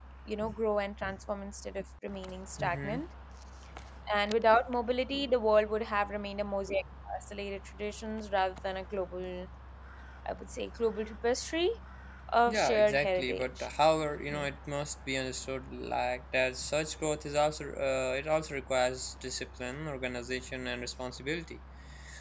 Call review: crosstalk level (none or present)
present